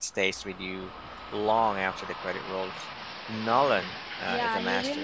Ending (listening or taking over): taking over